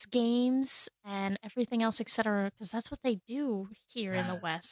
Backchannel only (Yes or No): No